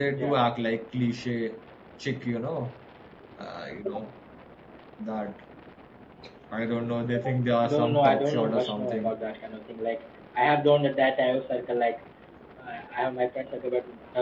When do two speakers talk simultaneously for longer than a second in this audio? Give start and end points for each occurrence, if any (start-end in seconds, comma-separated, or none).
7.6-9.2